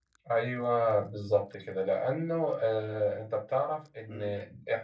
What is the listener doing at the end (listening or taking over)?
listening